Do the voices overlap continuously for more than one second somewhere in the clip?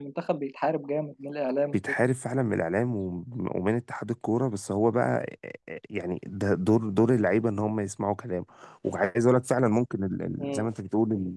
No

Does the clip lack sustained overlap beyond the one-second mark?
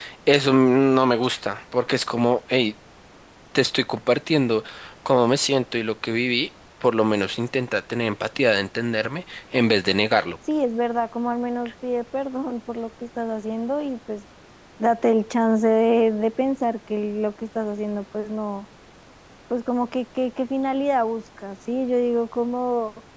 Yes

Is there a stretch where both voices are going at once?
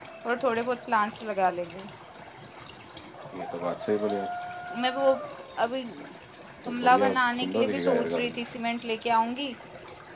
Yes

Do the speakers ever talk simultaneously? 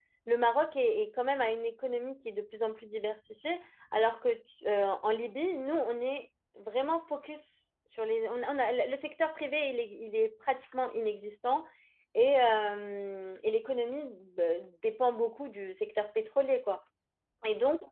No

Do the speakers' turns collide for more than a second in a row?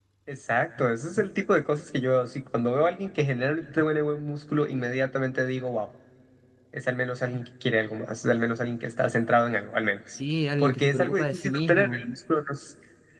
Yes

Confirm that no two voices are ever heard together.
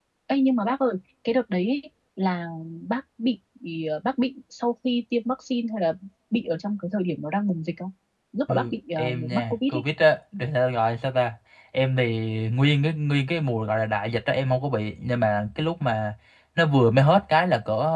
No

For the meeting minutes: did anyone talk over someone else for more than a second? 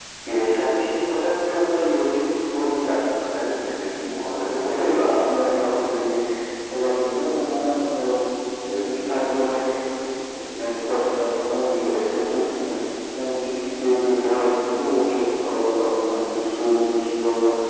Yes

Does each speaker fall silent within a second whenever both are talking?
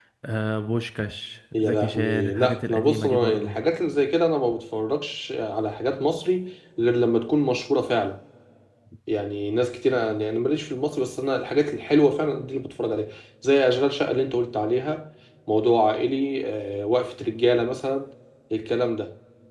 No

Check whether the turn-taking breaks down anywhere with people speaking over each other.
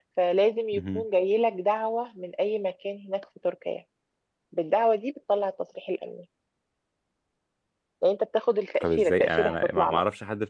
Yes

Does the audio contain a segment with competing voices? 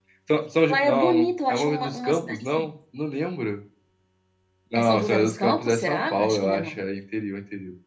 Yes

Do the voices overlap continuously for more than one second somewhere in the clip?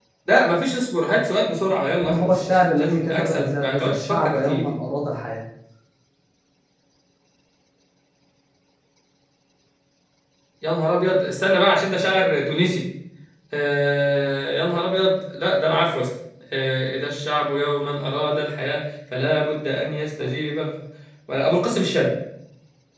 Yes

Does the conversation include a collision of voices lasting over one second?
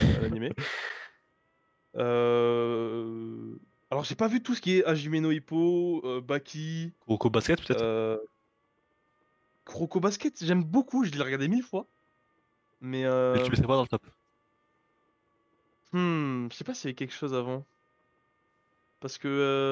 No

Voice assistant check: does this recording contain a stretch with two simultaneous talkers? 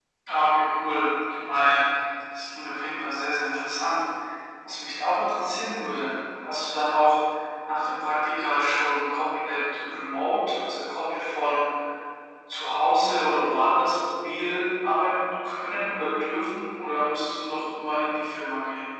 No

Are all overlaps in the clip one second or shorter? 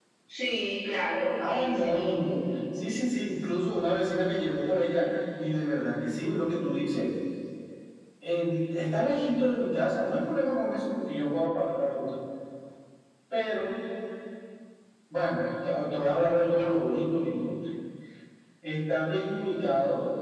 No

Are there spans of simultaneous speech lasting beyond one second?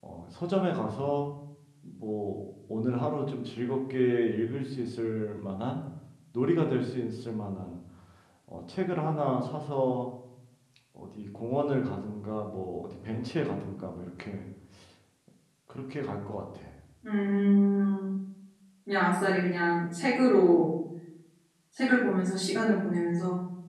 No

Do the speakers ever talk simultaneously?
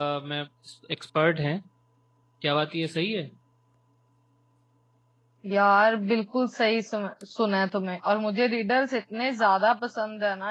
No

